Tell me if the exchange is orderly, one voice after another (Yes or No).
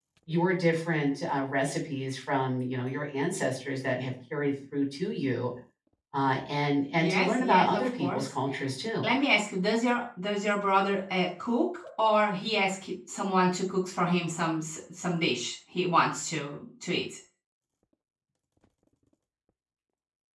No